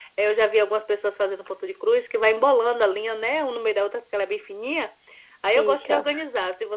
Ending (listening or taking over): listening